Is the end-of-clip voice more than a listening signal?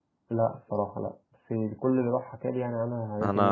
Yes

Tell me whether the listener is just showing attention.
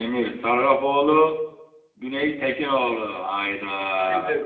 No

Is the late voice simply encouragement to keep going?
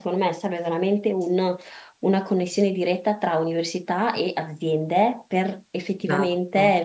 Yes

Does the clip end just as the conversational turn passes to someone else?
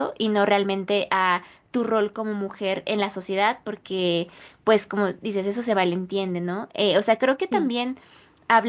No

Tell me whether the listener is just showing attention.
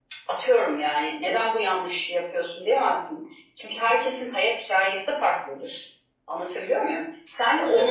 Yes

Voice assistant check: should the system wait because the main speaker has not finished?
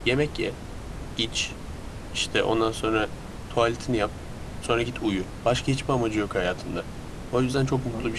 Yes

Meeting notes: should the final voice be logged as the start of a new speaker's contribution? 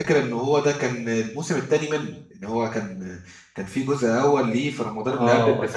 Yes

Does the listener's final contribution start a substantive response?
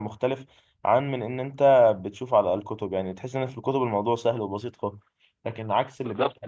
Yes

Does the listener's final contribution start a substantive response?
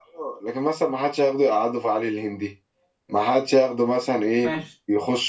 No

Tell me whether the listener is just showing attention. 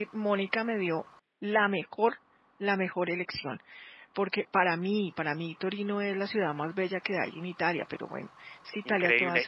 No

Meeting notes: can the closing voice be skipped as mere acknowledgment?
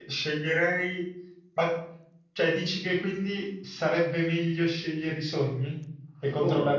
No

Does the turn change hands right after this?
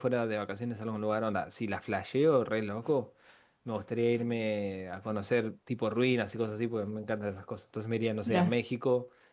No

